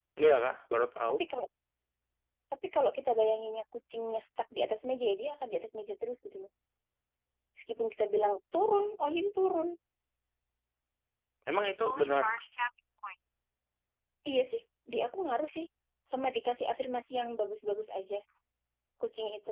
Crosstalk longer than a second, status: none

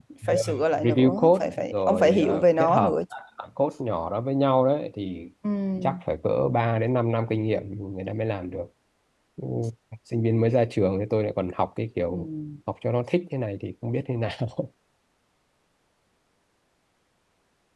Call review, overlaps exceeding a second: present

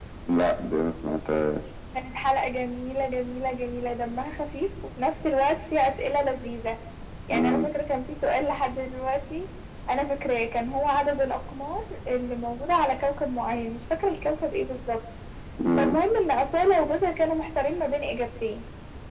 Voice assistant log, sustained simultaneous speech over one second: none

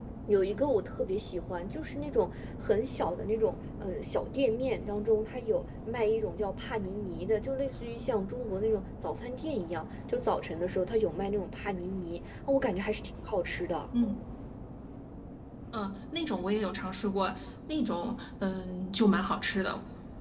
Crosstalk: none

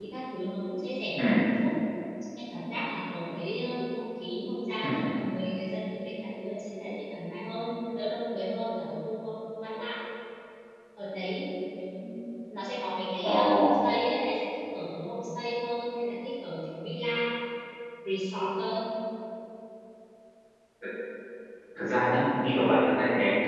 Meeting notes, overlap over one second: none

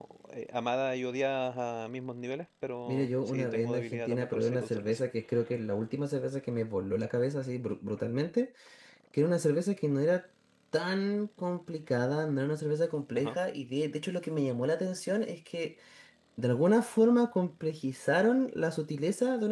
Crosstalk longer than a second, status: present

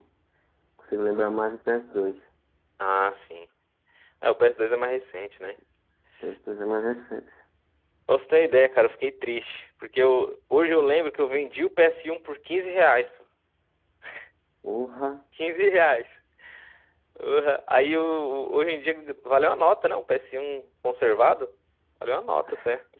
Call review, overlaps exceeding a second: none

